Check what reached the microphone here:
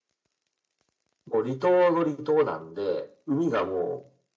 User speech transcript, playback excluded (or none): none